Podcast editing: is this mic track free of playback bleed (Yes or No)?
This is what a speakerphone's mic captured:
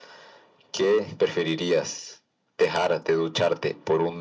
No